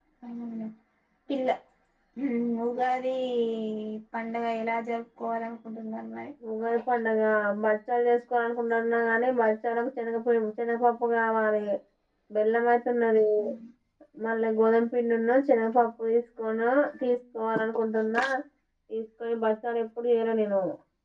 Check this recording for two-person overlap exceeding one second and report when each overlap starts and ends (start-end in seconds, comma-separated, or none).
none